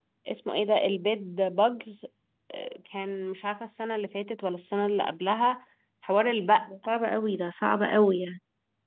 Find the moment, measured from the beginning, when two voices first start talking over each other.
none

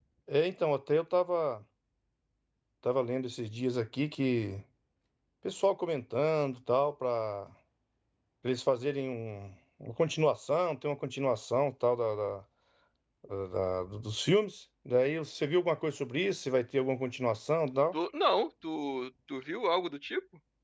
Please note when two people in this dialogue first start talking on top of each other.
none

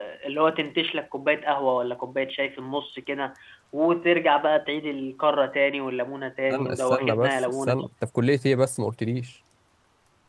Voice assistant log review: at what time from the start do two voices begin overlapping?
7 s

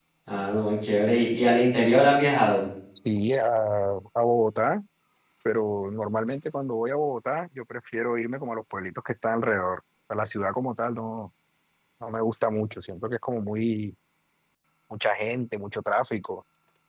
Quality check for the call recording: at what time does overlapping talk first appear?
none

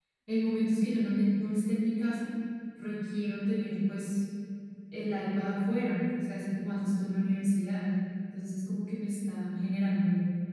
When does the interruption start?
none

